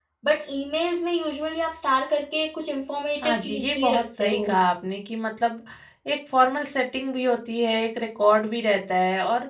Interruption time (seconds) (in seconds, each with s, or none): 3.2 s